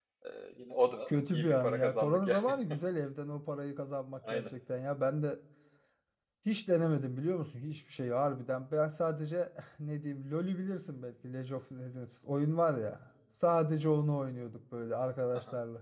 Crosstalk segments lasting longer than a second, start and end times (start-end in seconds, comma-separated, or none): 1.1-2.5